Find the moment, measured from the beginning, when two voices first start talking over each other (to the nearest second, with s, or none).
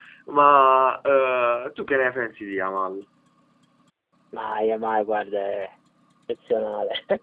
none